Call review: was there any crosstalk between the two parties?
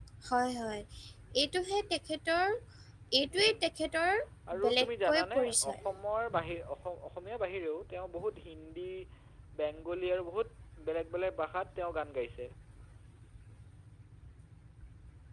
Yes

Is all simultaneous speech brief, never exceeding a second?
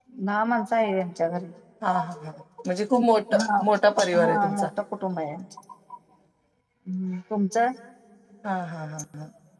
Yes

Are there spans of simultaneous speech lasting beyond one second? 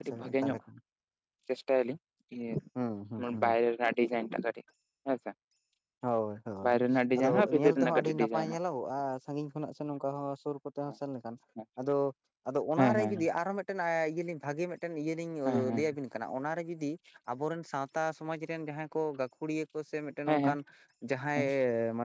Yes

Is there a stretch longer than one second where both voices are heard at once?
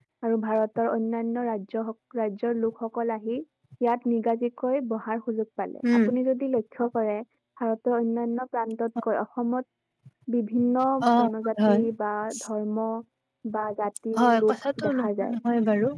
Yes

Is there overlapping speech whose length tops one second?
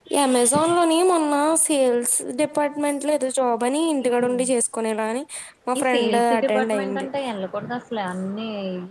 Yes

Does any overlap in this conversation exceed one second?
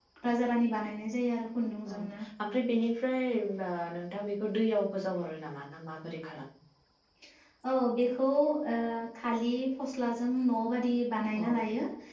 No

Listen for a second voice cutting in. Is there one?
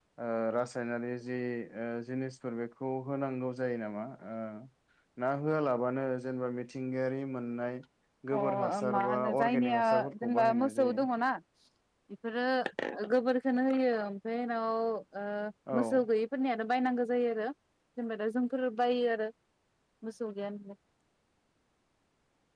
Yes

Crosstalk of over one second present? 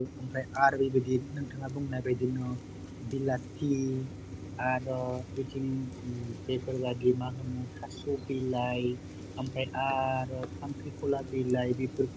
No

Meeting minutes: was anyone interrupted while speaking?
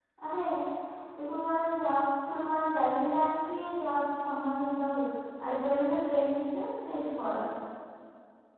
No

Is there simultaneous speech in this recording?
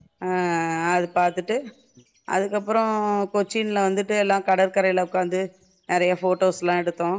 No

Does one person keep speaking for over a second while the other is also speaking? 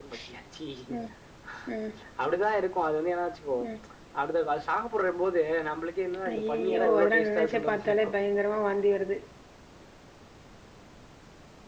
Yes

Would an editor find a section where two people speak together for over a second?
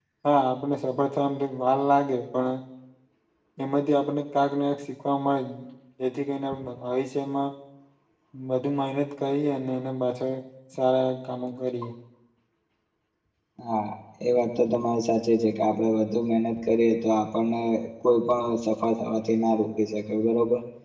No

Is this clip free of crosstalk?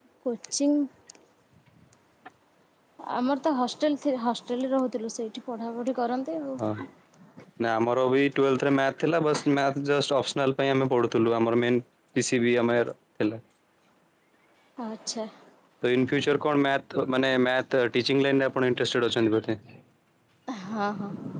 Yes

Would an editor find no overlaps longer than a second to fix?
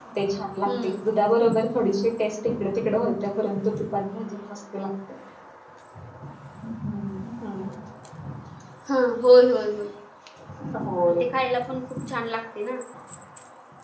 Yes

